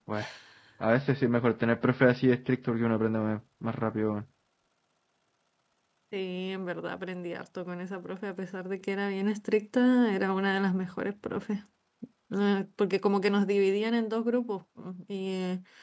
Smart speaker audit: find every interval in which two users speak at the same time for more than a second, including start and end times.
none

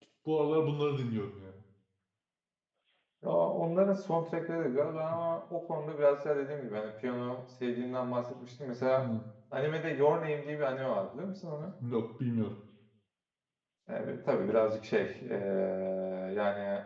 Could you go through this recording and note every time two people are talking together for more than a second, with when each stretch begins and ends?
none

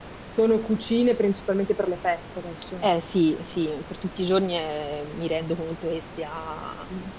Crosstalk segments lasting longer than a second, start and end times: none

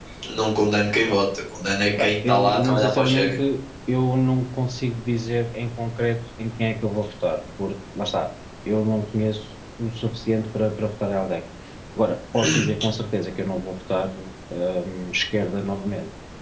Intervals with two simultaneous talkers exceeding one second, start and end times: 2.0-3.3

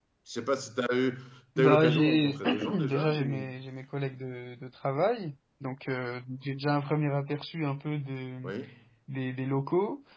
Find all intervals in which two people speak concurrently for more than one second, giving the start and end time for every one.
1.6-3.5

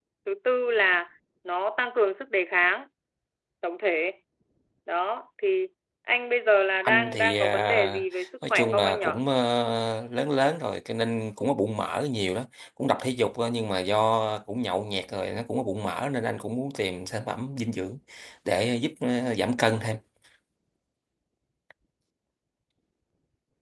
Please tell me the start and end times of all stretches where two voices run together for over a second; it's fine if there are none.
6.8-9.1

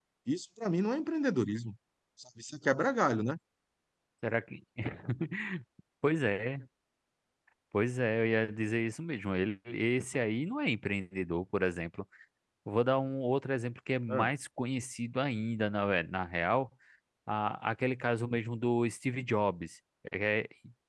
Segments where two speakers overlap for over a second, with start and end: none

